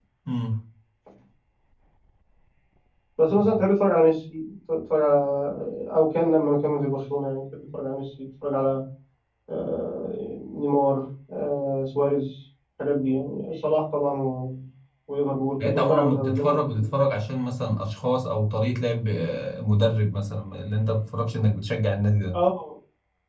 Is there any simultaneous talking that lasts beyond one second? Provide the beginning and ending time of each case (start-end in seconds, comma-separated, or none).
15.6-16.9